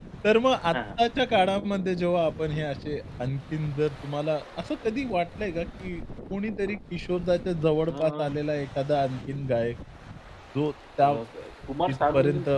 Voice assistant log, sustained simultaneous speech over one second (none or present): none